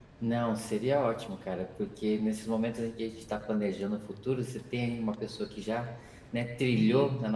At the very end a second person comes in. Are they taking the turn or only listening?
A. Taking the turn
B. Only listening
B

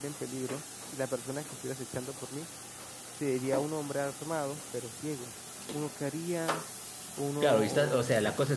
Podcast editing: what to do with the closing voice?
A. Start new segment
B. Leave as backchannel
A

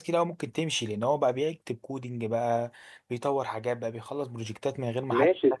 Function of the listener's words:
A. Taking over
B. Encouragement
A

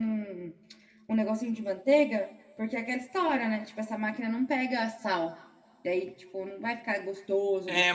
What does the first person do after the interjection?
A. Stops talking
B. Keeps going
A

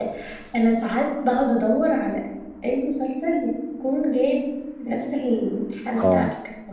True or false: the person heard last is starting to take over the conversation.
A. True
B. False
A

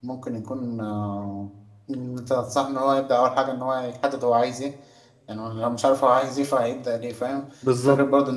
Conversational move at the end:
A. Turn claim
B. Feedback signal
B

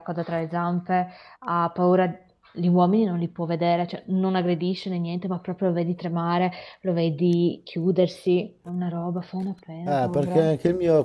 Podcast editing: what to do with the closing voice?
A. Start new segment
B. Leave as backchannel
A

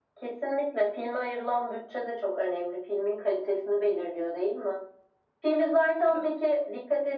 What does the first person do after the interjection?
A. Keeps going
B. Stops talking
A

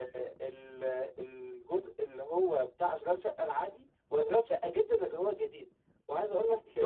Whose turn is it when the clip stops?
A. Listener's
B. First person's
B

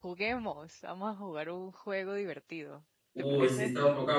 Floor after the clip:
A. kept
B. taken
B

